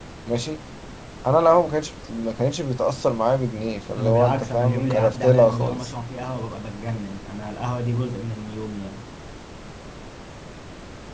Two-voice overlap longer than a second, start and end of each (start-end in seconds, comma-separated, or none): 4.0-5.9